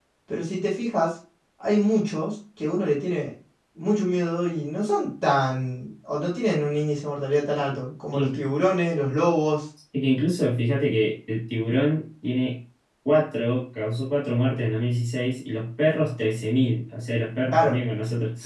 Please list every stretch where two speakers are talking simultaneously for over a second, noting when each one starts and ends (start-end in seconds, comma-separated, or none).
none